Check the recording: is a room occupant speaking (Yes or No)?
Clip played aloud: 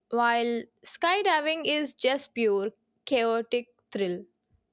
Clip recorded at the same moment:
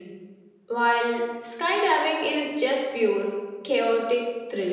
No